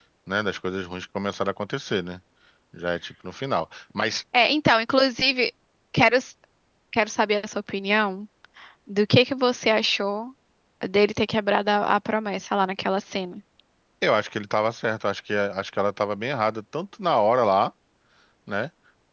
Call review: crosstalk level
none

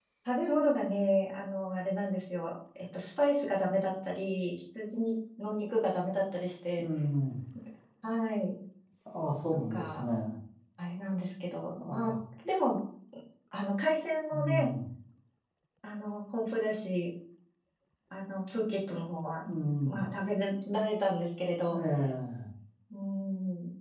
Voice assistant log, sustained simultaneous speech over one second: none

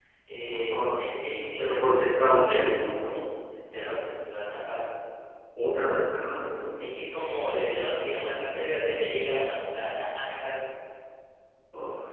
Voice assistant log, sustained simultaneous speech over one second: none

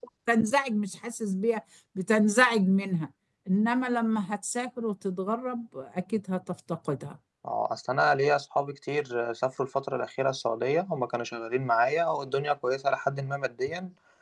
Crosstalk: none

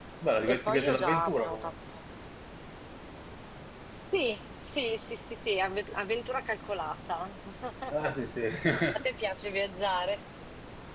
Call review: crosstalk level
present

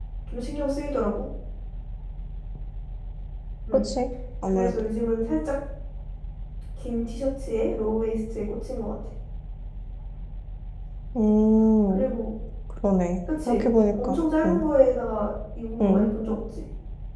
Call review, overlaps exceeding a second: present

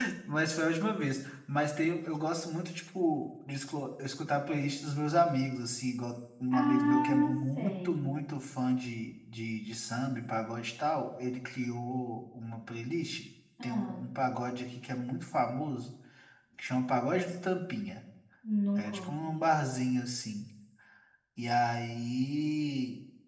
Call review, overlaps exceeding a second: present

